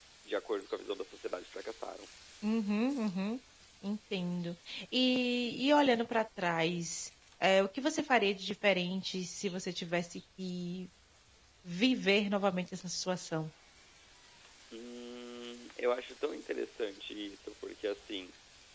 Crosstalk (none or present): none